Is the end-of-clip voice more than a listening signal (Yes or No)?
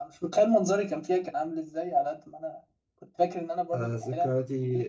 Yes